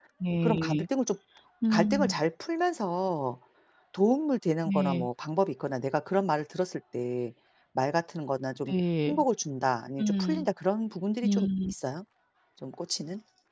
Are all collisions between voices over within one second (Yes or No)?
Yes